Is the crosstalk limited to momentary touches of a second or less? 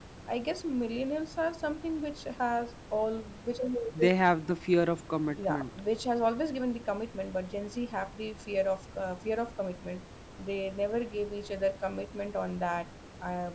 Yes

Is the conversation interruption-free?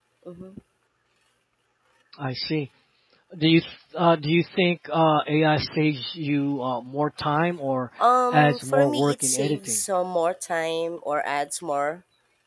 No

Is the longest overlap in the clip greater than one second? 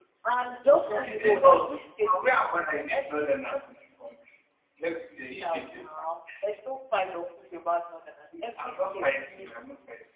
Yes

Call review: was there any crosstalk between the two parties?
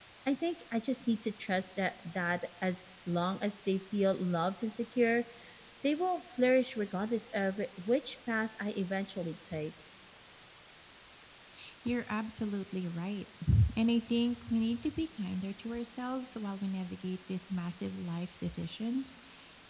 No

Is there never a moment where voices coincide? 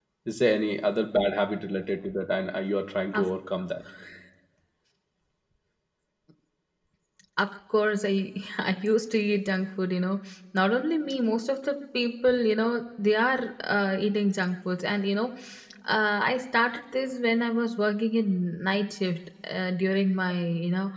Yes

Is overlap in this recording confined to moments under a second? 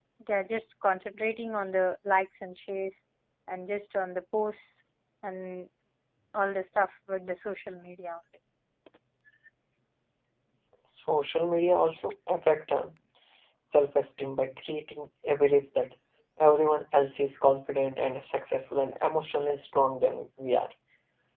Yes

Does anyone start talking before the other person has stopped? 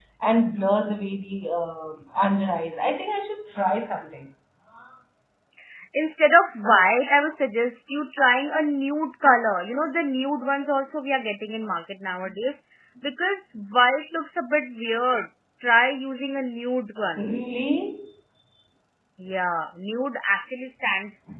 No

